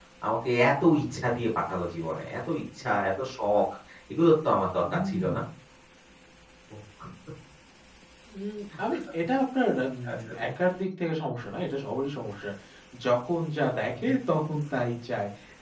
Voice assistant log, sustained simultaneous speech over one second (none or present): none